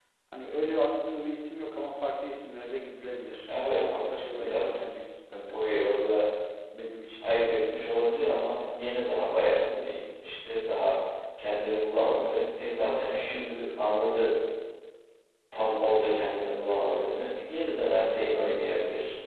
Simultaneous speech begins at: 3.4 s

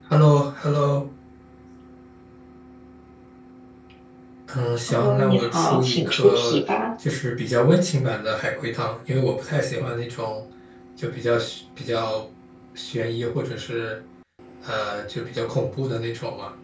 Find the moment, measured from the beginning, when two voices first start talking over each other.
4.9 s

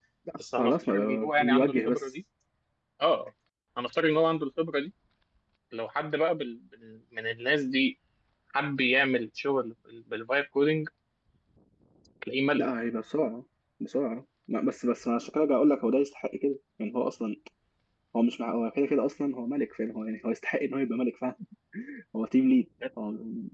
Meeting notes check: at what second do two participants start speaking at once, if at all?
0.6 s

